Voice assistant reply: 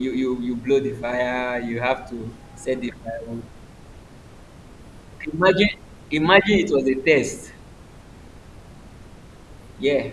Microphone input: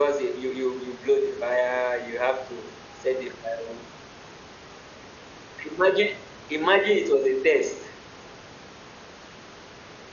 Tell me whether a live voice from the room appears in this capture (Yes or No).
No